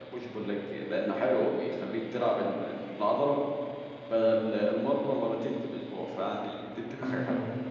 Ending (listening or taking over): taking over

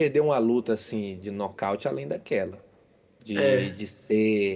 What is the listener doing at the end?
listening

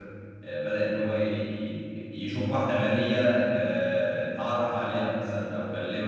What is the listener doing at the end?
listening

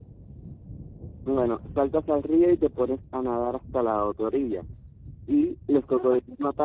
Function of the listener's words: listening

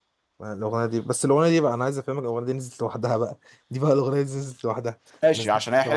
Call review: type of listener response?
taking over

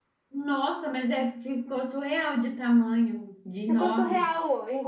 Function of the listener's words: taking over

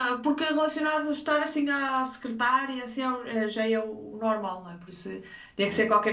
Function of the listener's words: listening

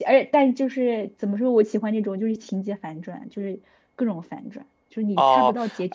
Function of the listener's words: taking over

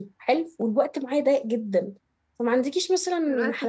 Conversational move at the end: listening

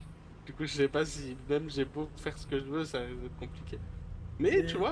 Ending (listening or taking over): listening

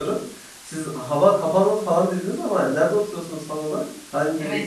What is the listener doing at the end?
taking over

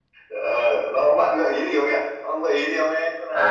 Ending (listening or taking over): taking over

